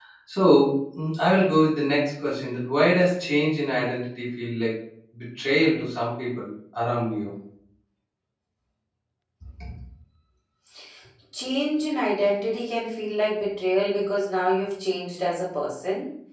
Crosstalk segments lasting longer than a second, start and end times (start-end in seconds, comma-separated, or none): none